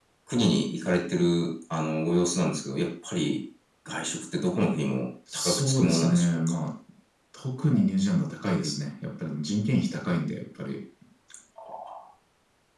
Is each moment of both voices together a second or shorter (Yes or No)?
No